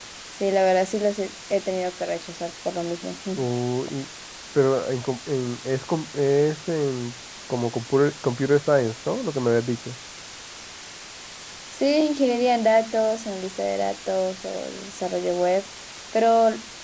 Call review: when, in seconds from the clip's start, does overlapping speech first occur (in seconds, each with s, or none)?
none